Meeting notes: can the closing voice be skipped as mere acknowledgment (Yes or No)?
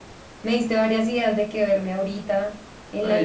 No